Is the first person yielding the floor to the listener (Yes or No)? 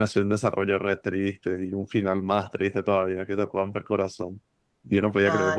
No